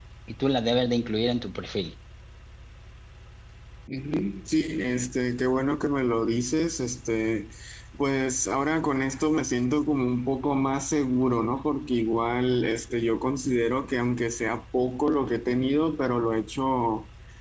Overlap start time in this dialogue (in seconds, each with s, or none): none